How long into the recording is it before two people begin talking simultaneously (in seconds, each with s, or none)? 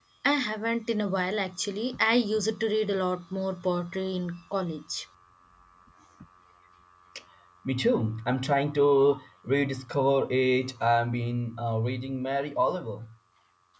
none